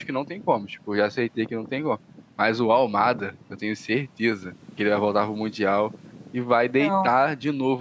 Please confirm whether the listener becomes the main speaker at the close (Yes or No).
No